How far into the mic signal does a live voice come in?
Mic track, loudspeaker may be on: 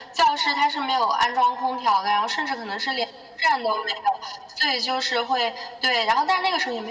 none

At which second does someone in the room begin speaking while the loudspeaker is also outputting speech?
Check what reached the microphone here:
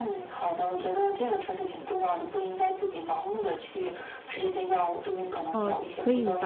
5.5 s

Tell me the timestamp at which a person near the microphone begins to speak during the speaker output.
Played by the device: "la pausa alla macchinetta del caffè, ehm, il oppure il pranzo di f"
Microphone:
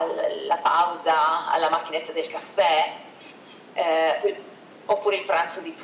none

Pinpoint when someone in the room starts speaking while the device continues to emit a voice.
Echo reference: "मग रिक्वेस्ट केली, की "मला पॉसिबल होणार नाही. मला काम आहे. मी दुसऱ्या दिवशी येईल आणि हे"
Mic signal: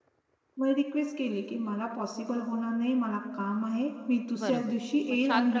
4.4 s

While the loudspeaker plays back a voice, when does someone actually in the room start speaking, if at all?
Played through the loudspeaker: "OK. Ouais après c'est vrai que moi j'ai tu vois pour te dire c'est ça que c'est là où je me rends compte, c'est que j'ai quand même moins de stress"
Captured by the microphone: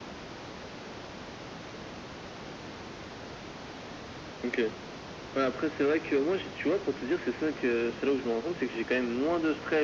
none

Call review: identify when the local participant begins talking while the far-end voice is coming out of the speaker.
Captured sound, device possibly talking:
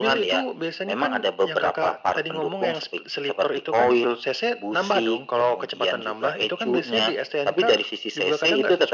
none

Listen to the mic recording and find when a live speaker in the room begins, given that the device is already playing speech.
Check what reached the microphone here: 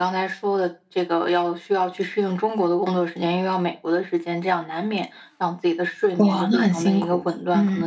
6.2 s

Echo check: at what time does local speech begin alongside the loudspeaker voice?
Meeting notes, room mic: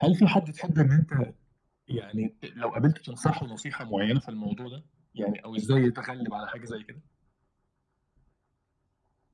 none

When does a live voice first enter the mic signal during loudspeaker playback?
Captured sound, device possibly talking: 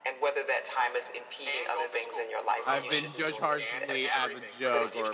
2.6 s

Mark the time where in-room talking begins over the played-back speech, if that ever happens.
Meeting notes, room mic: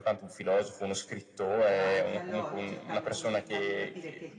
1.7 s

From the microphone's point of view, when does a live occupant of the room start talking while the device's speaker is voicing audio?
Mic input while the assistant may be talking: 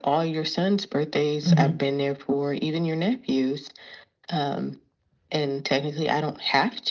1.4 s

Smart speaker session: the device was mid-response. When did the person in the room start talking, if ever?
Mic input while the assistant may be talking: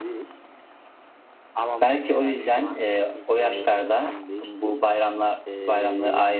1.8 s

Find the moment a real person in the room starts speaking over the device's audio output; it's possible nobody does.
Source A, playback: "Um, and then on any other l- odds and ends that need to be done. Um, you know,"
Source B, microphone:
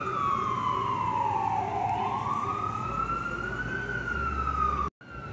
none

